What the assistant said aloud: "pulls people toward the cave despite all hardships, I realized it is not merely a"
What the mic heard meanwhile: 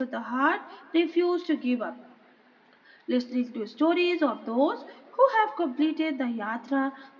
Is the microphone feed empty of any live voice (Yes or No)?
No